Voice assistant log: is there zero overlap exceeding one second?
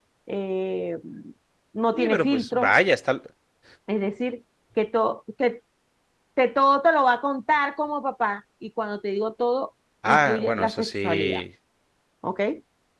No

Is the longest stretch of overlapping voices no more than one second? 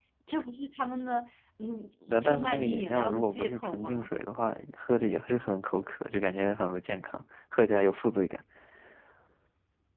No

